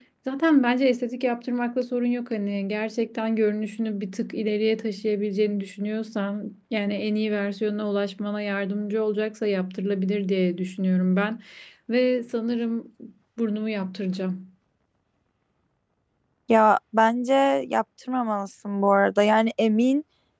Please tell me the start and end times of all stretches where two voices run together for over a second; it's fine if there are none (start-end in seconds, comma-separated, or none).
none